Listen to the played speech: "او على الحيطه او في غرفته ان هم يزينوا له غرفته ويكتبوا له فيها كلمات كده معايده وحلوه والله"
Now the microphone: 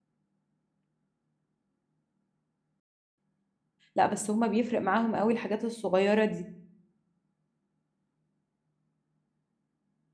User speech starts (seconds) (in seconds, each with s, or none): 3.9 s